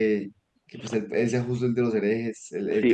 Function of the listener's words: taking over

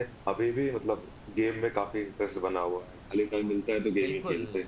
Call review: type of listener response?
taking over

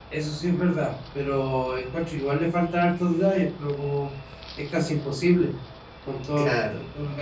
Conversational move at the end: listening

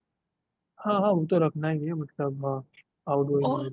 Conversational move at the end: taking over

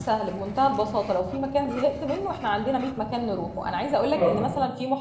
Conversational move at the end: listening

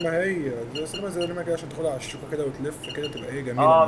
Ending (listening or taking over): taking over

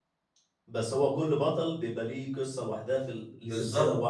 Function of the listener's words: taking over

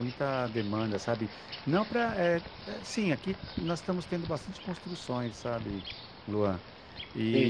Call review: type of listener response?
listening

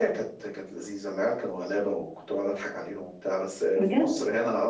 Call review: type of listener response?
listening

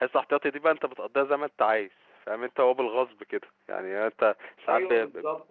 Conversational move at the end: listening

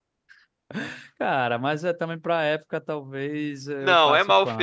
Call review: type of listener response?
taking over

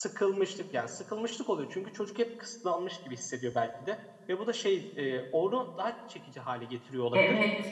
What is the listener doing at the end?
taking over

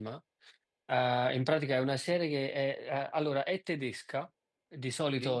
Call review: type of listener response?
listening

